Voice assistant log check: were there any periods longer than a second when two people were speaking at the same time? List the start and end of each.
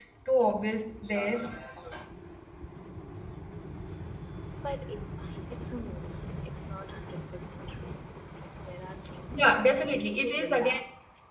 9.3-10.7

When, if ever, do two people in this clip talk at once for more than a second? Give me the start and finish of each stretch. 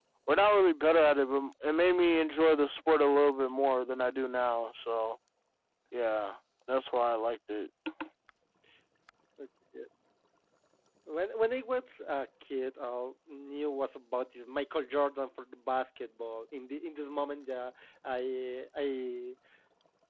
none

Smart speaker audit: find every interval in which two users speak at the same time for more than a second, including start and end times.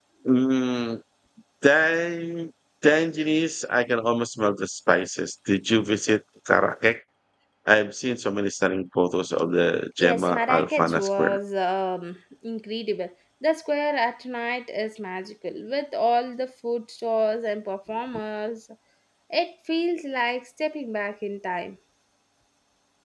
10.0-11.4

